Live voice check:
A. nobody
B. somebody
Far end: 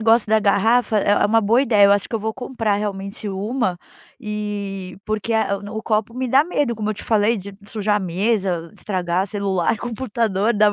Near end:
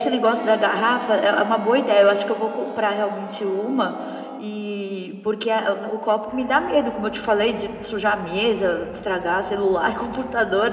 A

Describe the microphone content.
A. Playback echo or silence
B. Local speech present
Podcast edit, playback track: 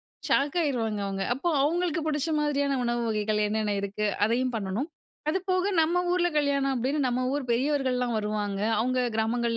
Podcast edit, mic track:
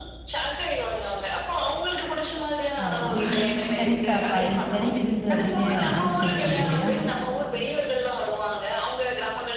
B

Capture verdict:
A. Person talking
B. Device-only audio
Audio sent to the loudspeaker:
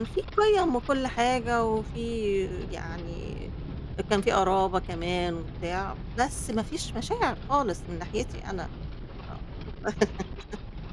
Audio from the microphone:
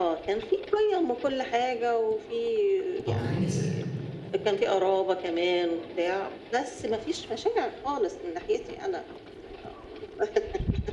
A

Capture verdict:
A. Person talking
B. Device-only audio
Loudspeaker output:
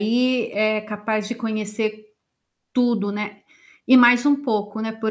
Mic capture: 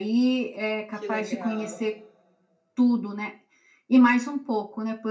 A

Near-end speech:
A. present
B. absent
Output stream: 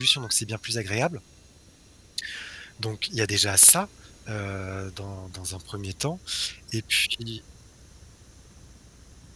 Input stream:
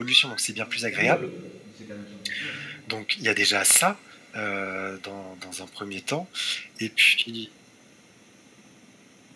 A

